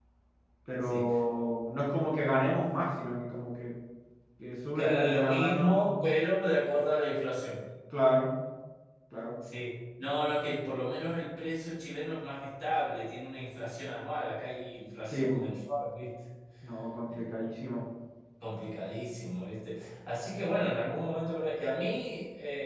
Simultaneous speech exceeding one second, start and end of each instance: 4.8-6.0

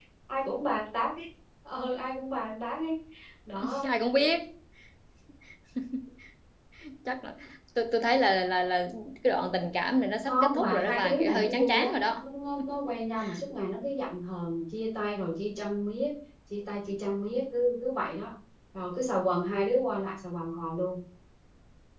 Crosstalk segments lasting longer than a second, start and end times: 10.2-12.0

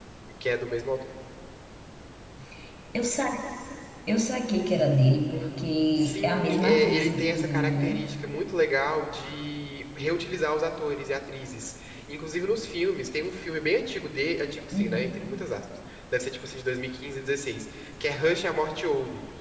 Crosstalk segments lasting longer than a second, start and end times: 6.0-8.0

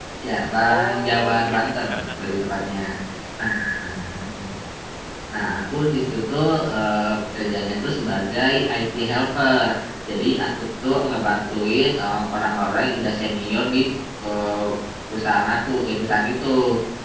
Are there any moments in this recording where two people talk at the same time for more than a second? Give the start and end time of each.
0.7-2.2

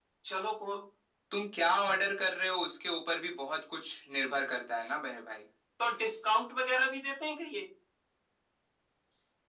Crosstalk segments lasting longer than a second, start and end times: none

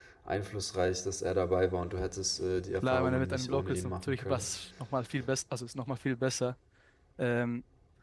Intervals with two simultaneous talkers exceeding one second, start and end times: 2.8-4.4

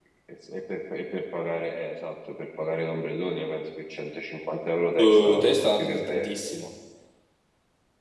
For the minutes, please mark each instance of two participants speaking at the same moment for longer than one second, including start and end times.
5.0-6.3

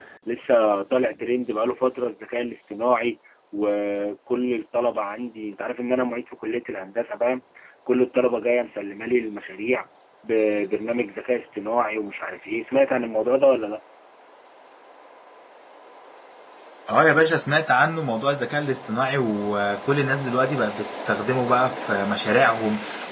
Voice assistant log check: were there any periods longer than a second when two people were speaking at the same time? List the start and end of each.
none

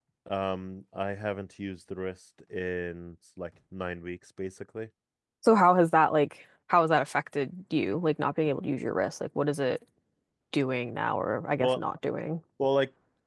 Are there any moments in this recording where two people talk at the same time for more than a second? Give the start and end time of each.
none

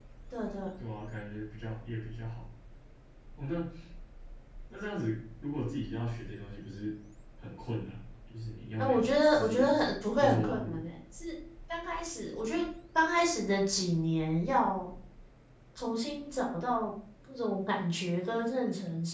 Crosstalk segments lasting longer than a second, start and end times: 8.8-10.8

